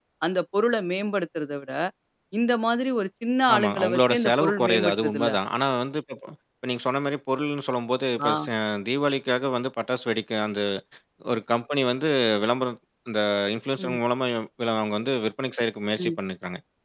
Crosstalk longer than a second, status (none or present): present